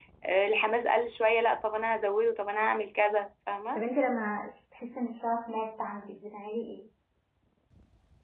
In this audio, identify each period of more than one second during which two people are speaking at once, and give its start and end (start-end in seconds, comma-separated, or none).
none